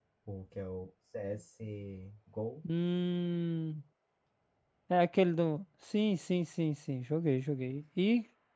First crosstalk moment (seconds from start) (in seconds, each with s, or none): none